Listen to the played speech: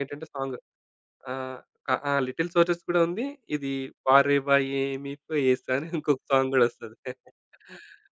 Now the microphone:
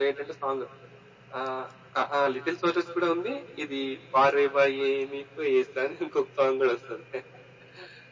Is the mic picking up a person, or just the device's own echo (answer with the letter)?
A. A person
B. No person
B